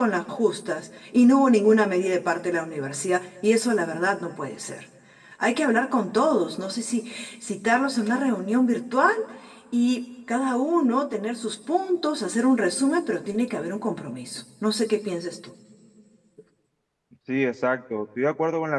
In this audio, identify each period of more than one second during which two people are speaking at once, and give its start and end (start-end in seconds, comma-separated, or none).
none